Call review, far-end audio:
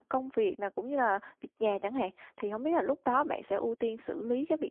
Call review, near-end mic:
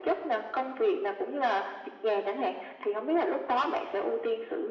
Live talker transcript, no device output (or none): none